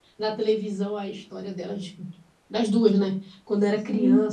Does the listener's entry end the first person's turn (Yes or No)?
No